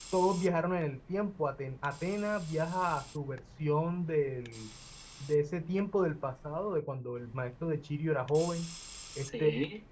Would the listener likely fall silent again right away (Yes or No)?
Yes